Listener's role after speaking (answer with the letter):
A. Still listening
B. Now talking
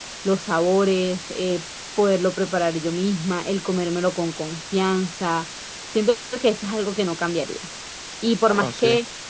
A